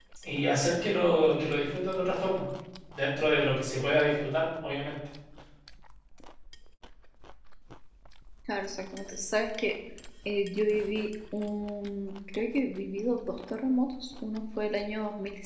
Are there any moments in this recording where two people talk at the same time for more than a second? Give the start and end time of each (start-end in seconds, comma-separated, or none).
none